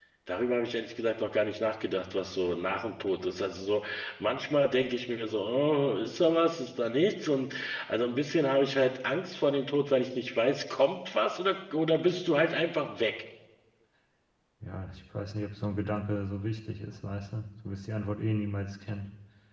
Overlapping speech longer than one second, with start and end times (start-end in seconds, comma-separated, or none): none